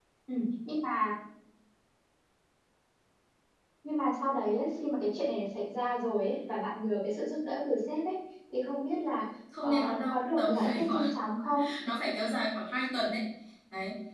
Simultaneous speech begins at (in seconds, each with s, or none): 9.6 s